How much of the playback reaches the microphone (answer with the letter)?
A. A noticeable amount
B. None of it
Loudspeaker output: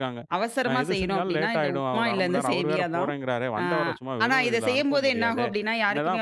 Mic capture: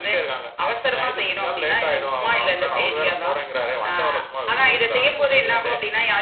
A